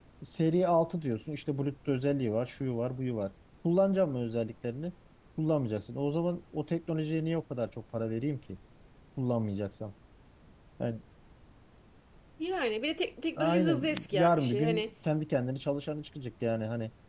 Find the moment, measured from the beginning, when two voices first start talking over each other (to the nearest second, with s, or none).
13 s